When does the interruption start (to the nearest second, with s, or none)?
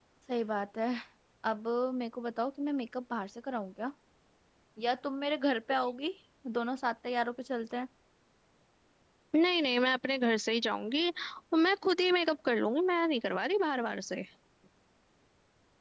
none